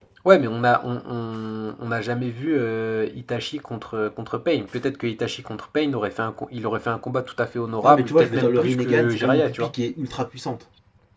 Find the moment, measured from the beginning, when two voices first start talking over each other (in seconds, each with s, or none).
7.8 s